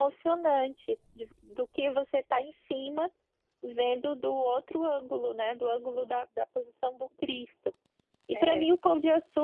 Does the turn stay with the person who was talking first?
Yes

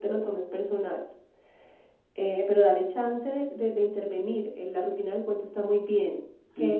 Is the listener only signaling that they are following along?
No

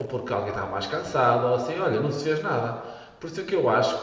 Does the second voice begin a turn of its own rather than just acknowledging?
No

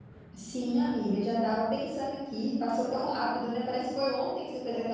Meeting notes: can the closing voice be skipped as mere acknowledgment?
No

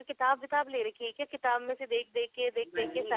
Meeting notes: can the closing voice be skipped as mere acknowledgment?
No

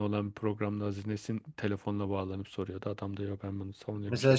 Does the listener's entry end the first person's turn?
Yes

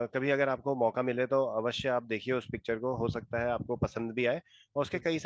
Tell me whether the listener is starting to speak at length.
No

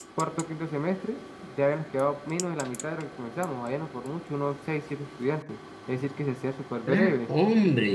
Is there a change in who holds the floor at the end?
Yes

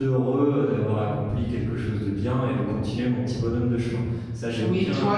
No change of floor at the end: No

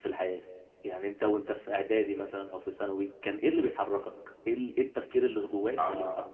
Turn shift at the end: Yes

